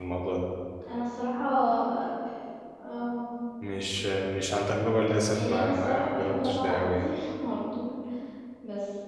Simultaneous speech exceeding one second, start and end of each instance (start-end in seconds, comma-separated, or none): 5.4-7.1